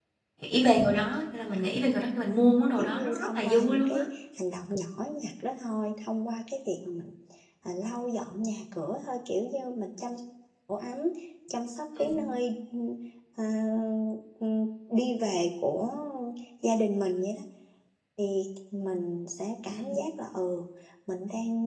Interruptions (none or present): present